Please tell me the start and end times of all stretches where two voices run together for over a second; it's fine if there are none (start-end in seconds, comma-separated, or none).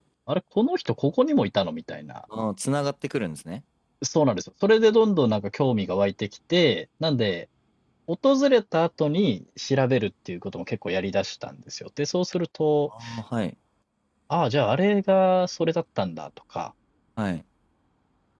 none